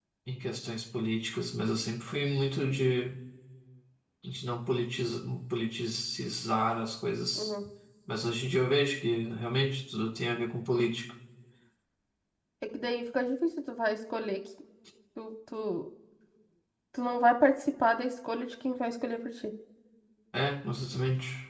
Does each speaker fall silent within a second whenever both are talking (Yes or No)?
Yes